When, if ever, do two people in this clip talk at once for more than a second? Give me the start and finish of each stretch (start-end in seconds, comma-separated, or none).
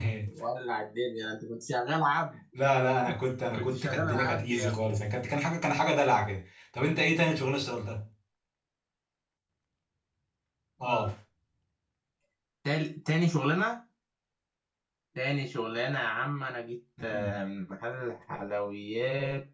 3.5-4.9